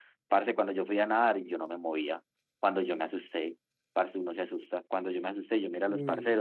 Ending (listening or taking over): listening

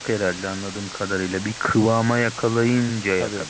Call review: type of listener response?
taking over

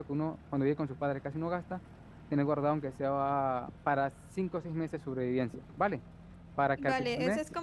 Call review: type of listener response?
taking over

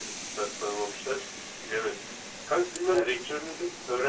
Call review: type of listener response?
listening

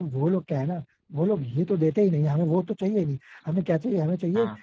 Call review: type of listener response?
listening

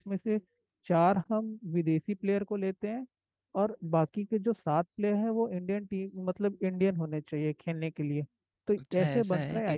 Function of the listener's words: taking over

